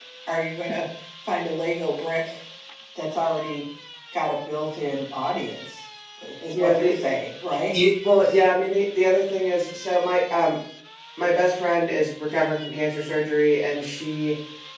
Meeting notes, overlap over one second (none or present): none